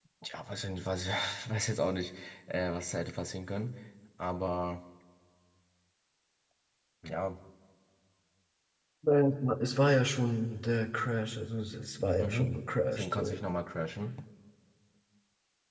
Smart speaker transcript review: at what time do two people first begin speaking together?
12.2 s

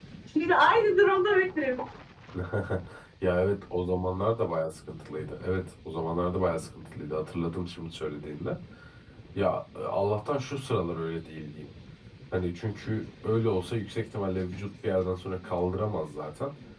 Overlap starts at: none

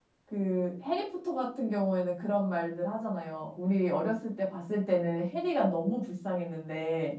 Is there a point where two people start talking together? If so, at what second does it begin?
none

